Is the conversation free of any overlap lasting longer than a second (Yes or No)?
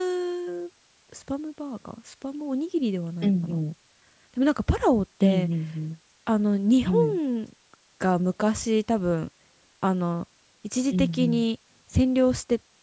Yes